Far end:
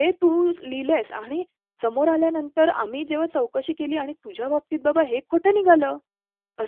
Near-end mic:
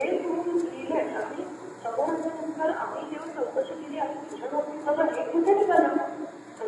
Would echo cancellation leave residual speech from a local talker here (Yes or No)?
No